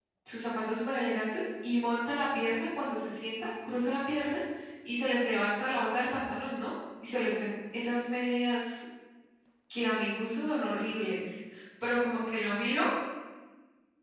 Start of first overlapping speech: none

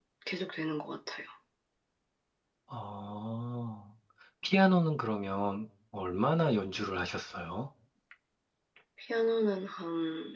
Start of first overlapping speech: none

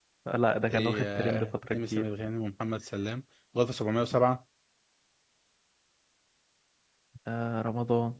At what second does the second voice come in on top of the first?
1 s

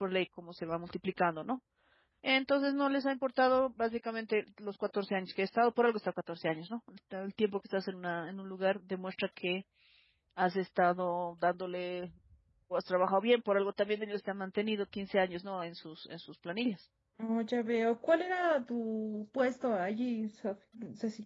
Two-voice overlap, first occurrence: none

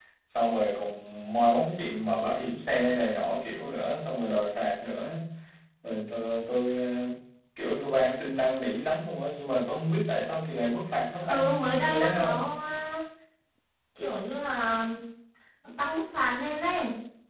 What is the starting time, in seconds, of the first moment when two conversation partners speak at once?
11 s

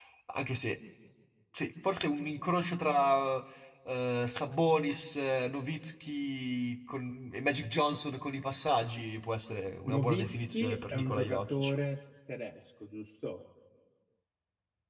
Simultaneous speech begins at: 10 s

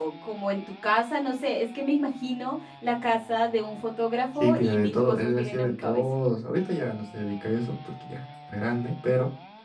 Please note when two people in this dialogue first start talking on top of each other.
4 s

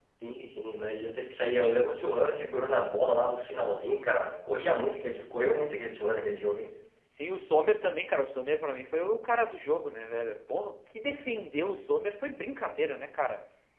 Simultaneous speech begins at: none

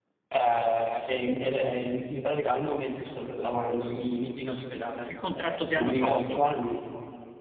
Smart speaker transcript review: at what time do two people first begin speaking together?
5 s

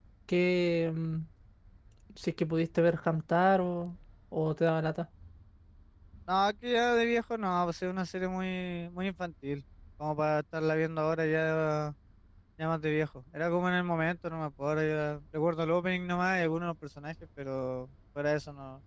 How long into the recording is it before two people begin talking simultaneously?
none

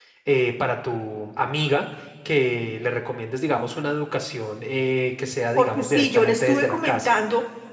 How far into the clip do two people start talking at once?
6 s

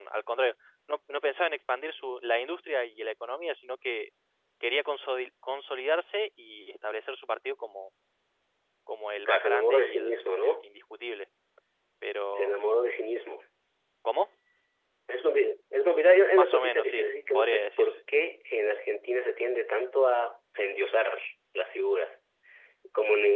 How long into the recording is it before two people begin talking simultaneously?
9 s

